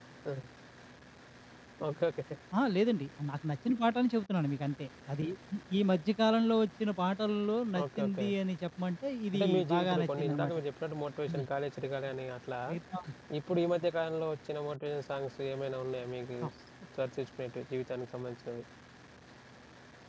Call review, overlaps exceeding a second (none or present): present